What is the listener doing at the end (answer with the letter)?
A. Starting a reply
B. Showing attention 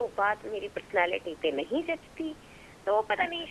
B